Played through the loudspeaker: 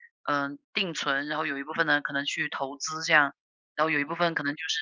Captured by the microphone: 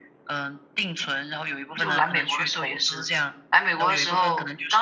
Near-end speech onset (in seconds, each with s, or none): 1.8 s